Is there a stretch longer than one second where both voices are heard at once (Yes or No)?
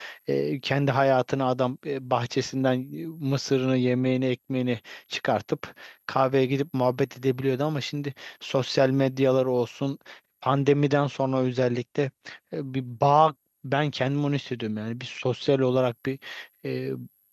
No